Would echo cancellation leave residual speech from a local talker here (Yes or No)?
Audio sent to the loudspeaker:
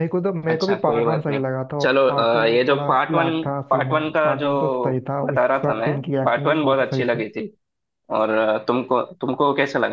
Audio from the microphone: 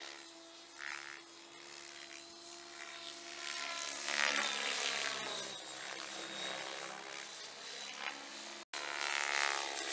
No